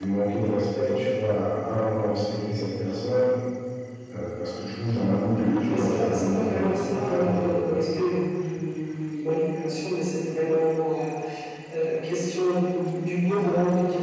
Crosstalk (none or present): present